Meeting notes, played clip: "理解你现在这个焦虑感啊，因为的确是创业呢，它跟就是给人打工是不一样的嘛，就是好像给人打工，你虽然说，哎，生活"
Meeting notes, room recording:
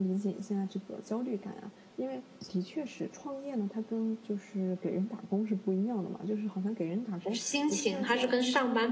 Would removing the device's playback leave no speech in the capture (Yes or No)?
No